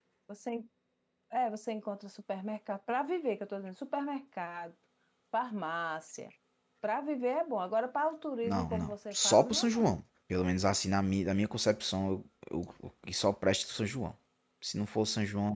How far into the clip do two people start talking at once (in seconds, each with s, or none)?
8.4 s